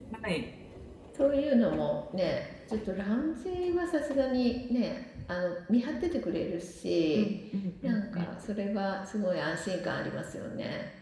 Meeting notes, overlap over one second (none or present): none